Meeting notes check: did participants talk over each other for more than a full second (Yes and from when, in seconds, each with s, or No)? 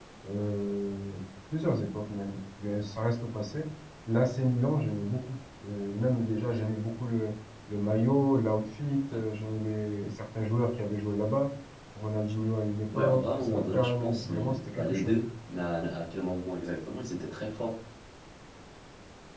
Yes, from 12.9 s